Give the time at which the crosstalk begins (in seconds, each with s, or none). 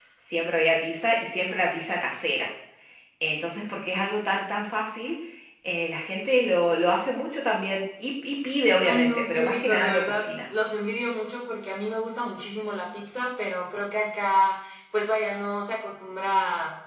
8.8 s